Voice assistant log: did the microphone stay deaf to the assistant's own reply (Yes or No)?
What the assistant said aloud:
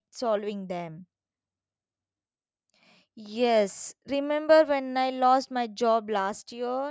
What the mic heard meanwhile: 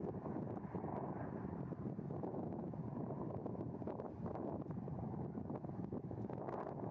Yes